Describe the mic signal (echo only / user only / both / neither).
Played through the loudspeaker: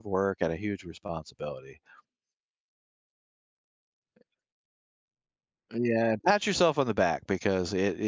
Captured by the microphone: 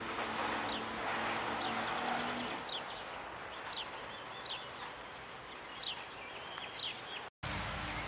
neither